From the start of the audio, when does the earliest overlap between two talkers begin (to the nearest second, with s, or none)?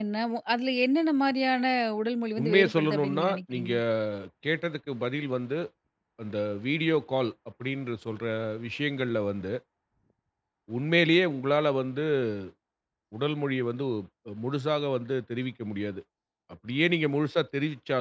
2 s